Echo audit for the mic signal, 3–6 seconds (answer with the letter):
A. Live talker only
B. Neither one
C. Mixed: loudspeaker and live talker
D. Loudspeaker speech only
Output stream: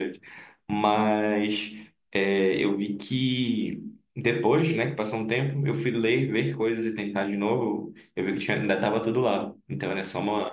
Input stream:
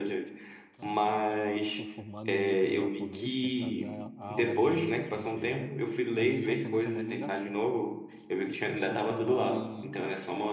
C